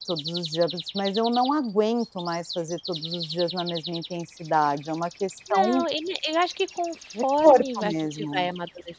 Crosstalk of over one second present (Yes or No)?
Yes